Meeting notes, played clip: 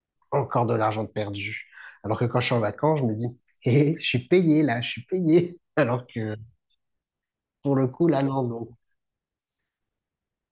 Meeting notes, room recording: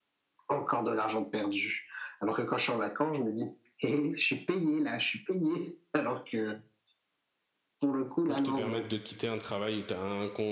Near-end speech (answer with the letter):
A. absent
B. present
B